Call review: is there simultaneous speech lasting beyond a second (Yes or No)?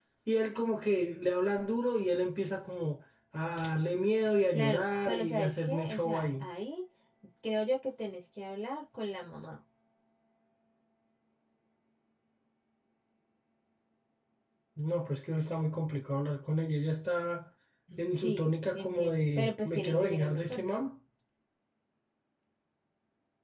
Yes